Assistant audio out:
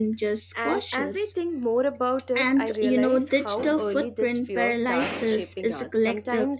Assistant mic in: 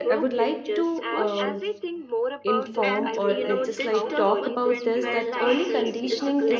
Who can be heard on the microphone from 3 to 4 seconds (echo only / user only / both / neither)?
both